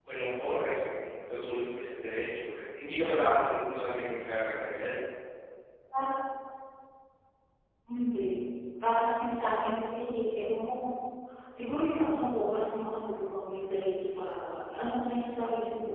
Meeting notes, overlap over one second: none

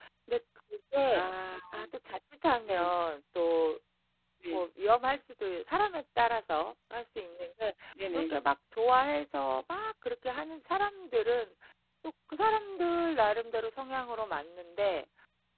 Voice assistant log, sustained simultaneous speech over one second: none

